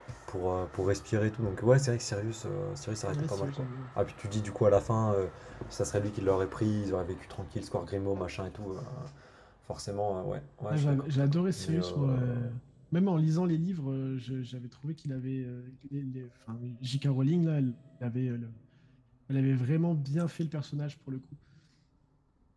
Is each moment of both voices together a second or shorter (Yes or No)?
No